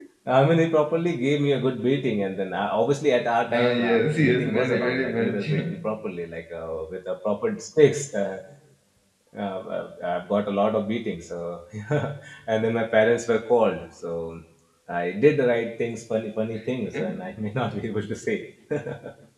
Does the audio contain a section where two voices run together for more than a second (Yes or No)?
Yes